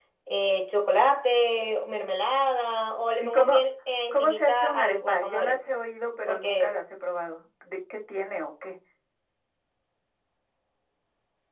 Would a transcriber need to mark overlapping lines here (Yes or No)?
Yes